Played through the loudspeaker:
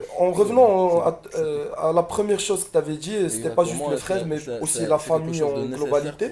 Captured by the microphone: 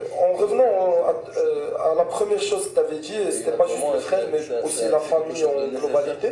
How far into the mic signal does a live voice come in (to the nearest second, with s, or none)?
none